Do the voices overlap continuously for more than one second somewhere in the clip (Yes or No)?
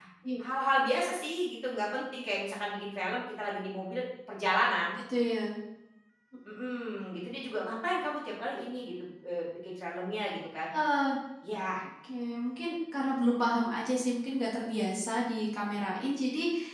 No